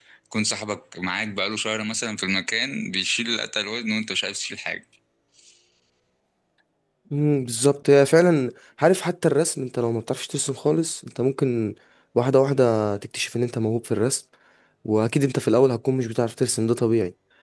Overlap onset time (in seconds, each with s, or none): none